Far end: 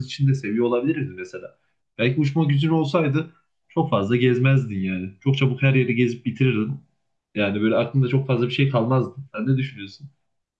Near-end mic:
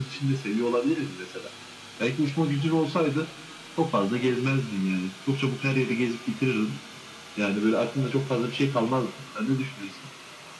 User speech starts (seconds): none

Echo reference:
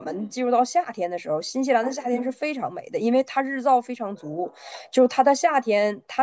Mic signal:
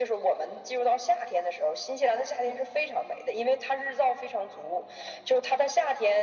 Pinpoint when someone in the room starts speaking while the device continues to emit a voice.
none

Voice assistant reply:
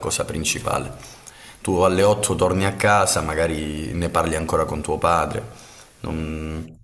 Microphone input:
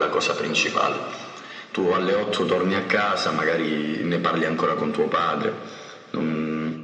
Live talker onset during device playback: none

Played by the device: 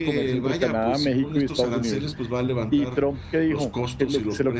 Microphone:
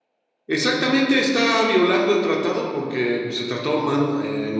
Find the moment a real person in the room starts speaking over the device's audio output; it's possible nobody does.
0.5 s

